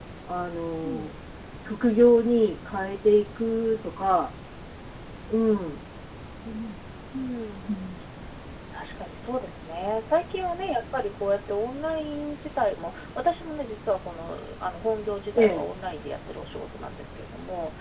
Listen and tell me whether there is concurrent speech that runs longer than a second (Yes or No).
No